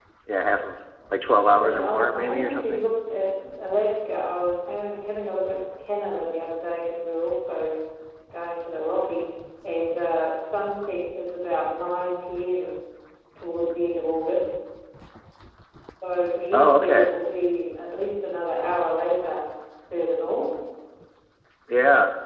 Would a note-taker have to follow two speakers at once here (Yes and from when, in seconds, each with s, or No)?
Yes, from 1.5 s